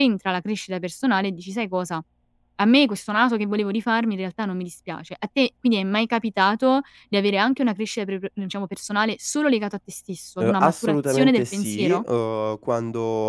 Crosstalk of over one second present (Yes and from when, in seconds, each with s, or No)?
Yes, from 10.4 s